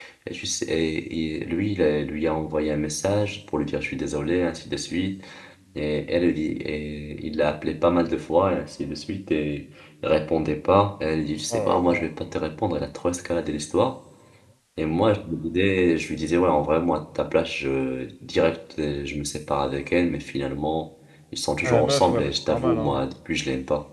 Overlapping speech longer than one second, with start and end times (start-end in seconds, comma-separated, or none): 21.6-23.1